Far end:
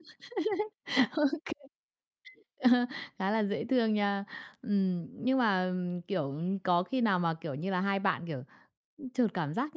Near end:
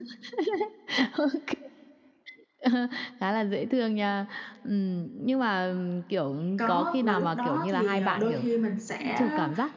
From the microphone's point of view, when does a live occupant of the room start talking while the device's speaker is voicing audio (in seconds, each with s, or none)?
6.6 s